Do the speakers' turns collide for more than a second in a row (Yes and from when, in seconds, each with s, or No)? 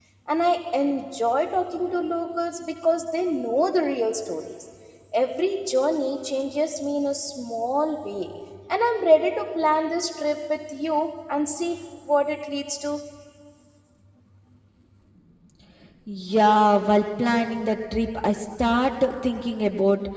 No